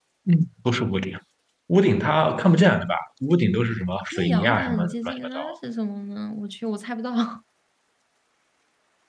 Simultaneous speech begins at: 4 s

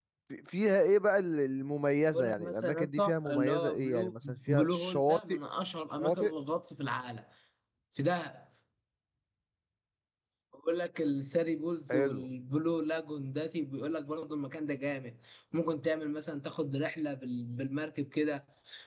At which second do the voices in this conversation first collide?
2 s

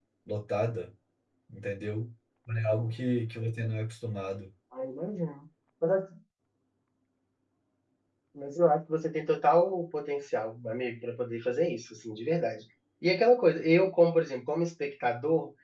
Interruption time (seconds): none

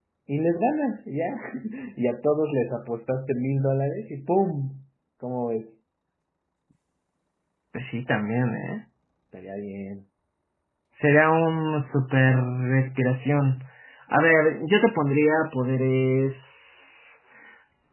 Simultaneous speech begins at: none

